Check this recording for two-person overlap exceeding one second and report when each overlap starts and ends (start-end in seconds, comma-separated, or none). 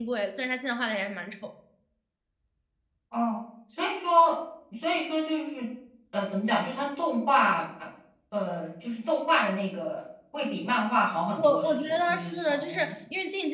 11.4-12.9